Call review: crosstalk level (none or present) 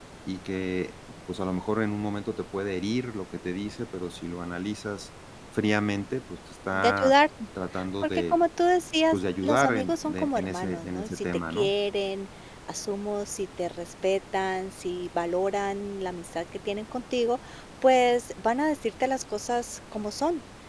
present